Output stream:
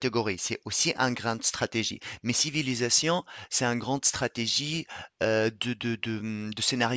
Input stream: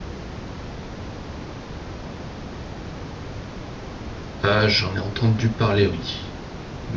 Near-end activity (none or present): present